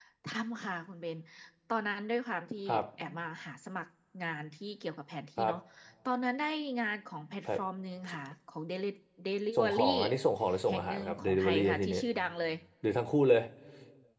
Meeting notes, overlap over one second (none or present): present